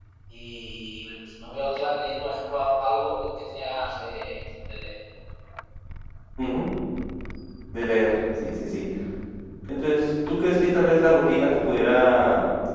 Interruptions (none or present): none